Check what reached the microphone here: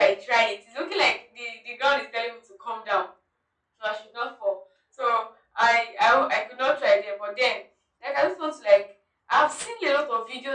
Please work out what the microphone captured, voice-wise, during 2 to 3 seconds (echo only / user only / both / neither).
echo only